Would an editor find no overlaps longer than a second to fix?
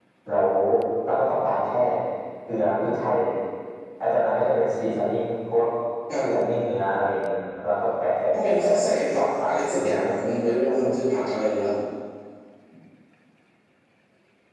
No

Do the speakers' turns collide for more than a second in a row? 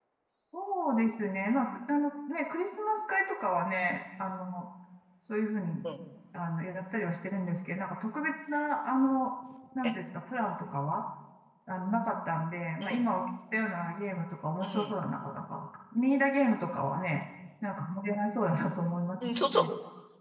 No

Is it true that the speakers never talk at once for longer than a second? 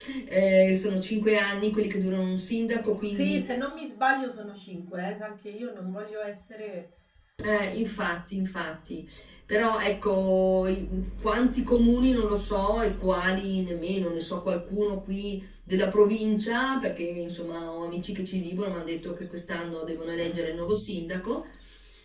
Yes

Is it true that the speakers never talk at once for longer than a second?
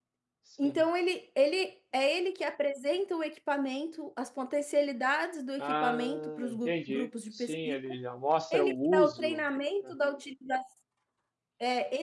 No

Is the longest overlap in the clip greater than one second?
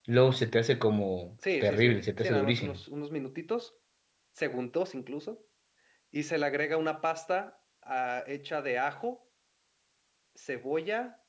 Yes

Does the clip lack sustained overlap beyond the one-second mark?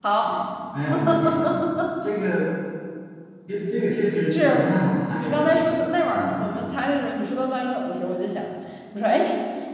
No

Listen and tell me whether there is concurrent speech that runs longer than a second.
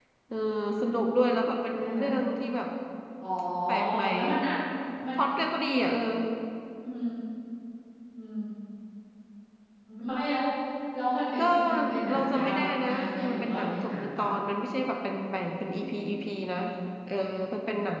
Yes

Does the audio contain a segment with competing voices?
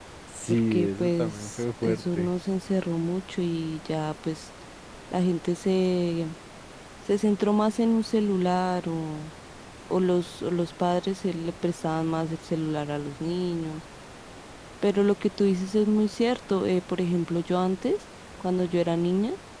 Yes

